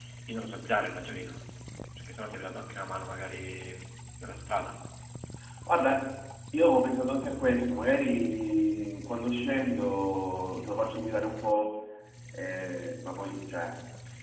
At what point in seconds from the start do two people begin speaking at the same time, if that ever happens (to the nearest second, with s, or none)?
none